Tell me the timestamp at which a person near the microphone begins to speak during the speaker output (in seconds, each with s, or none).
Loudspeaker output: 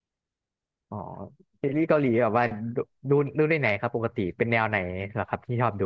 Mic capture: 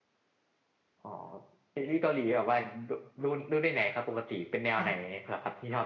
4.8 s